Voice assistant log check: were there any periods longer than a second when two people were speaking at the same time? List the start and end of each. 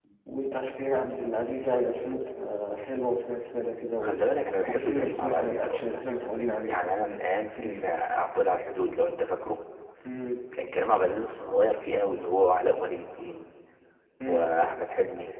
4.6-5.9

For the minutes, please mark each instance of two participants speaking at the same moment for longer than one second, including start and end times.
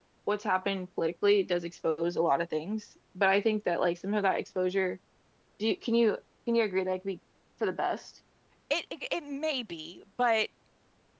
none

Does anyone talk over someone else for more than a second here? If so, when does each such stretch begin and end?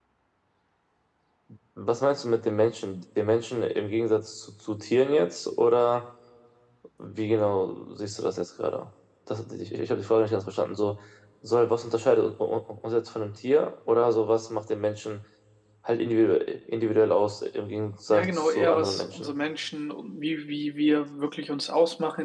18.1-19.3

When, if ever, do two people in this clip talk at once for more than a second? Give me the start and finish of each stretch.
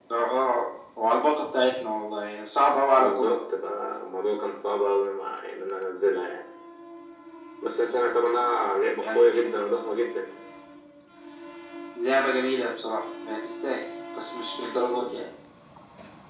none

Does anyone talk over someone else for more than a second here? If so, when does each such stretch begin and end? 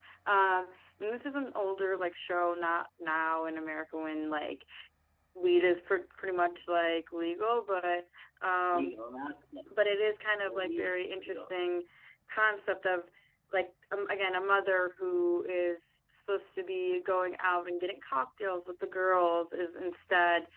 10.0-11.5

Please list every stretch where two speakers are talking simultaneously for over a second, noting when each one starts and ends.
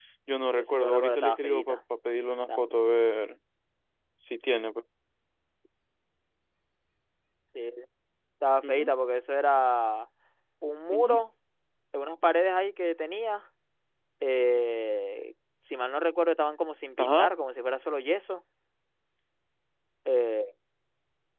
0.5-1.8

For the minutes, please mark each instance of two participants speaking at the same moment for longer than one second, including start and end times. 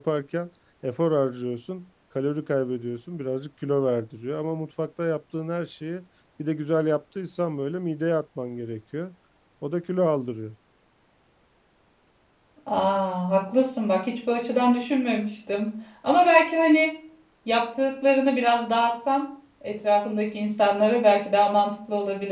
none

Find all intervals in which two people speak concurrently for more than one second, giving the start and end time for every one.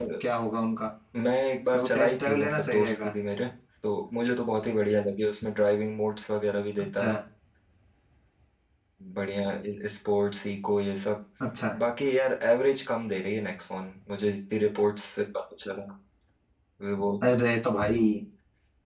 1.7-3.1

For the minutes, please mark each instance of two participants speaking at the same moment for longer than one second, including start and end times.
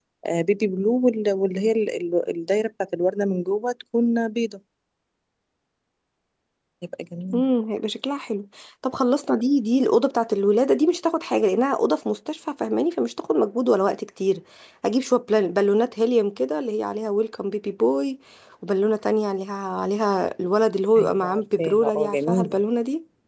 21.0-22.6

